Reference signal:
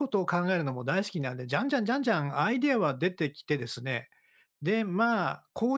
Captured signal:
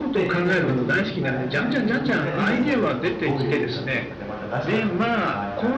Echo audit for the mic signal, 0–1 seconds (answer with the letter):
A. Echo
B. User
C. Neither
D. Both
D